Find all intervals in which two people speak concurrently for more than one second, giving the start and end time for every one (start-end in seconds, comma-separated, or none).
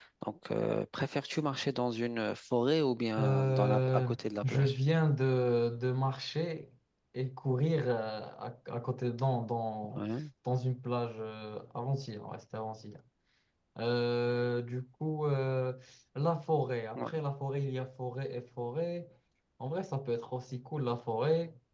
3.2-4.8